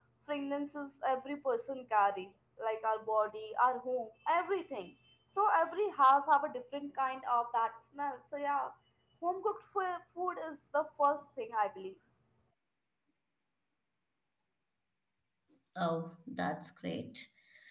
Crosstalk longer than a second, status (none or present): none